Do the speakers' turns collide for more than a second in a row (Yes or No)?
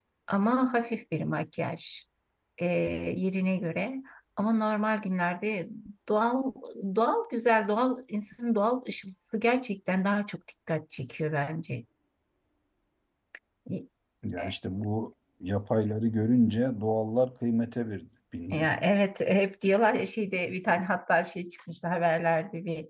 No